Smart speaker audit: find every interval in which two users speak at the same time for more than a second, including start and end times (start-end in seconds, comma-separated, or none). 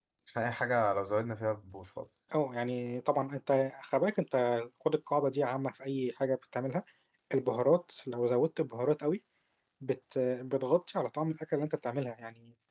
none